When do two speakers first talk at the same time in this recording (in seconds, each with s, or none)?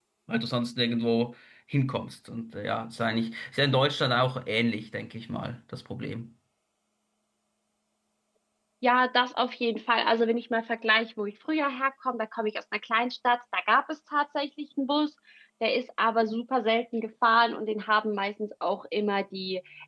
none